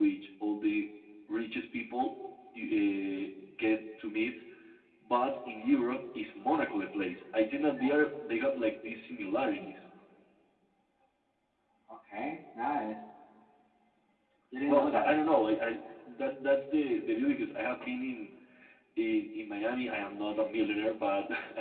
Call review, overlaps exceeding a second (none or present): none